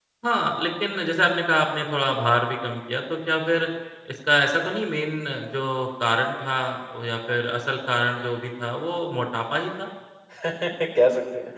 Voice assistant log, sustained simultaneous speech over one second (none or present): none